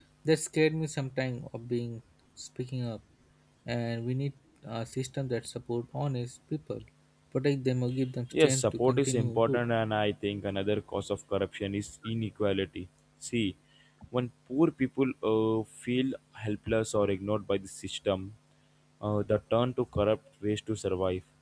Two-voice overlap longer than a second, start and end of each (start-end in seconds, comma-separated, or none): 8.4-9.7